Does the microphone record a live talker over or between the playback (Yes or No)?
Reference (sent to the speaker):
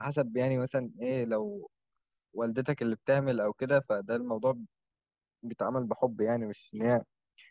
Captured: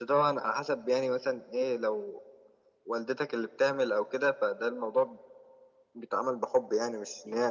No